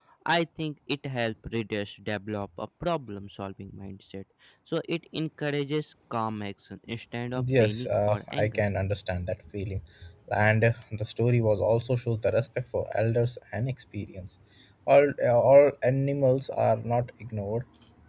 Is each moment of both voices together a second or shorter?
No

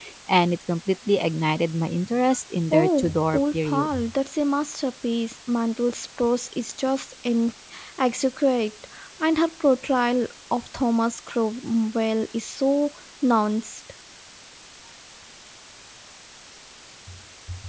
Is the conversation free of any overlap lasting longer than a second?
No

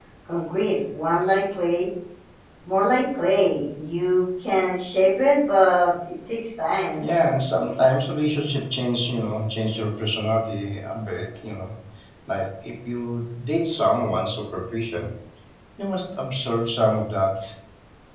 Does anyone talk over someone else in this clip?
No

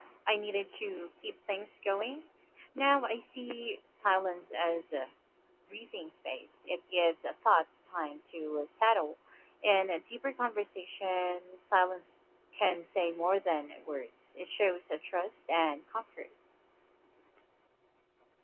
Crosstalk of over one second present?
No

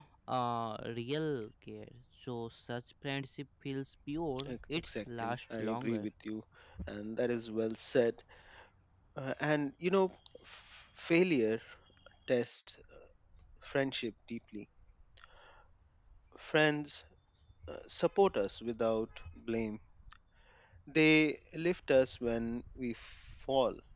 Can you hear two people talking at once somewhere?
Yes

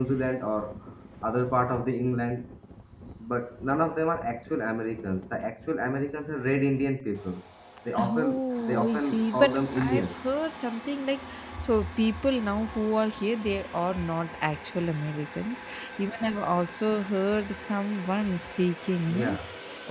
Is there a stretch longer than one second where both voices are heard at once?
Yes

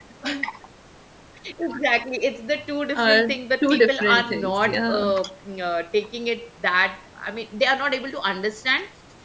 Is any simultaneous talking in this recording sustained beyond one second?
Yes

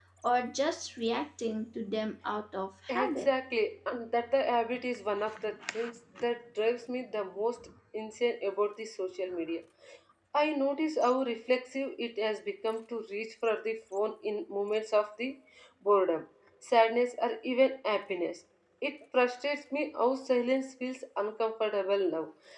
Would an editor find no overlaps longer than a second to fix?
Yes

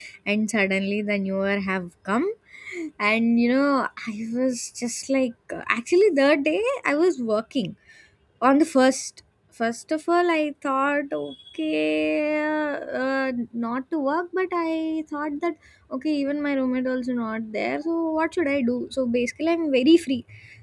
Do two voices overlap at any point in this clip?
No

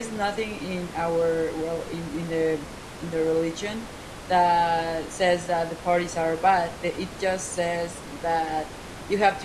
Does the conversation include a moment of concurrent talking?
No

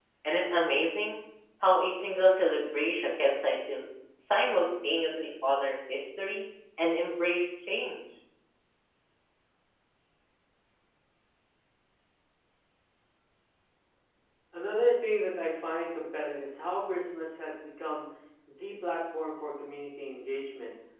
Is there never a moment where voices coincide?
Yes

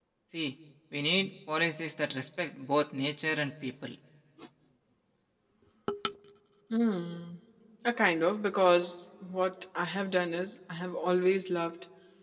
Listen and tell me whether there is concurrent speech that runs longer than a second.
No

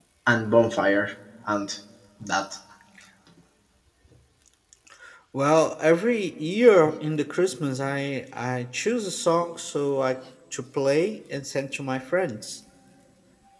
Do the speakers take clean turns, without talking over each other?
Yes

